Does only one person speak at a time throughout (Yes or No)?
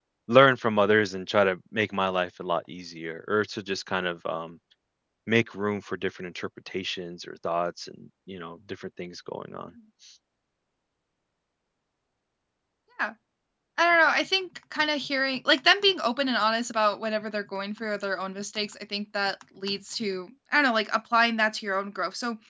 Yes